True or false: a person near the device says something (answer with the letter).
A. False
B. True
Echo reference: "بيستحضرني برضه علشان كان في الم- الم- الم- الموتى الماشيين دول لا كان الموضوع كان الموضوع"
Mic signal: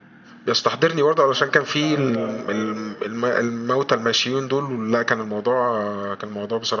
B